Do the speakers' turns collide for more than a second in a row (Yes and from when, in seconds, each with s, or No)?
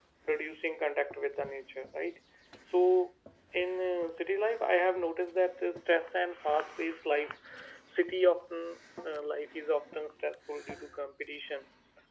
No